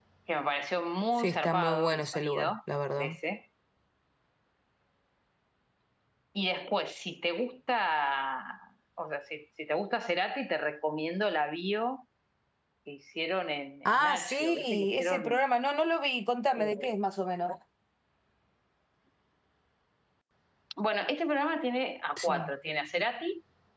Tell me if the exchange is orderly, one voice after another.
No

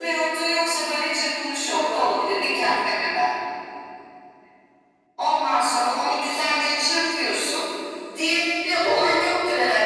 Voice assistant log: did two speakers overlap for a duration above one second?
No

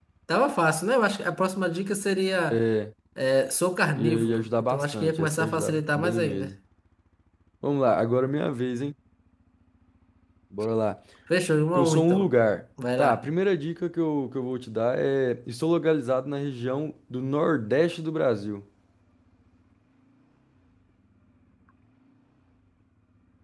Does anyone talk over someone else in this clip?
Yes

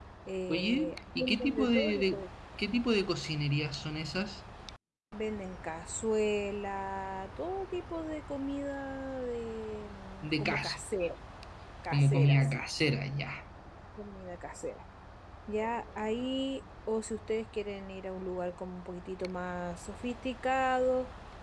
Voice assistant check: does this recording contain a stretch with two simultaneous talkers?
Yes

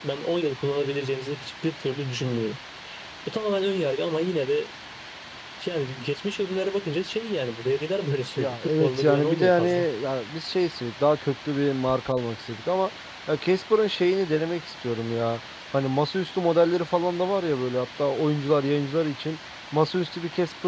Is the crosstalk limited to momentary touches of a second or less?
No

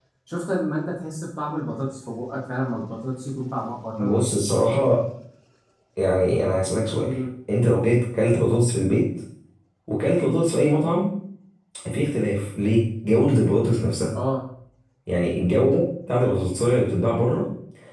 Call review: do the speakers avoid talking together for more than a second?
Yes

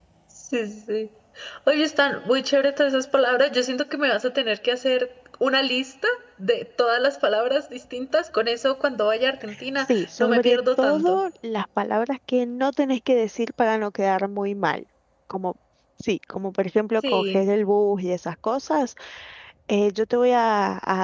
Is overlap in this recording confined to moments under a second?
No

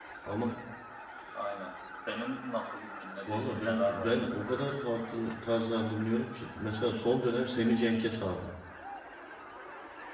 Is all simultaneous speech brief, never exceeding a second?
No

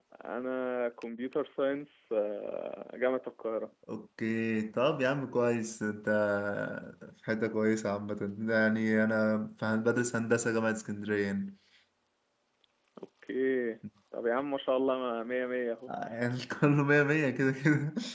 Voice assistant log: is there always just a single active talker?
Yes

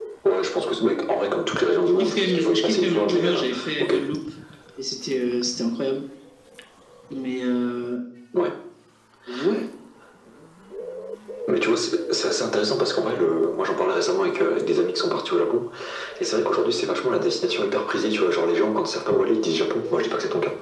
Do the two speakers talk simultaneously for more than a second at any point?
Yes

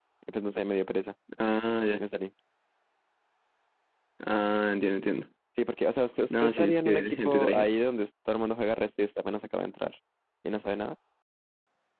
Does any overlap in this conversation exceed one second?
Yes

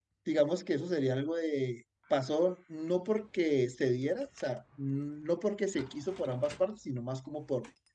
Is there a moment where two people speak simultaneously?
No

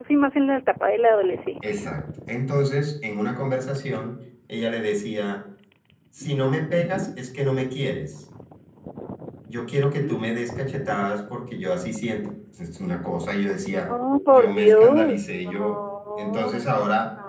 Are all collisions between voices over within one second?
No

